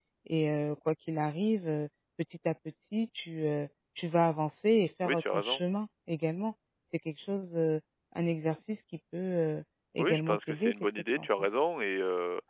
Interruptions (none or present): present